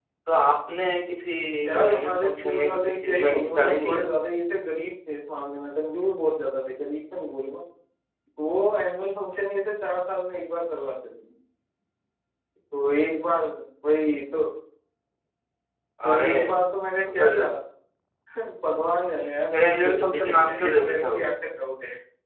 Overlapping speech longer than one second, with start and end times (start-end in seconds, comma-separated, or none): 1.9-4.0, 19.5-21.2